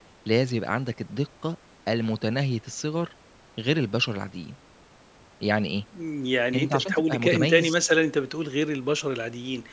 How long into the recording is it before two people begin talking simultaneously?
7 s

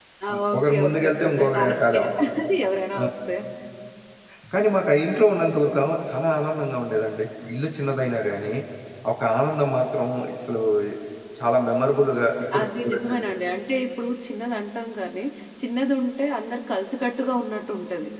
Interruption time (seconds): 1 s

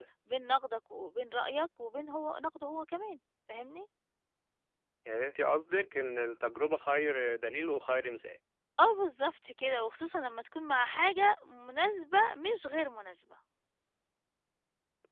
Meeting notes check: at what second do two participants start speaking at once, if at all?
none

